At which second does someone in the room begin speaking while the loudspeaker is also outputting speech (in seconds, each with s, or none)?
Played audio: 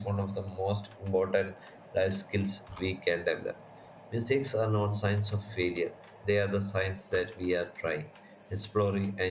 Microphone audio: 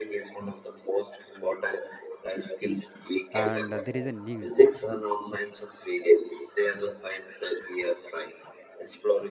3.3 s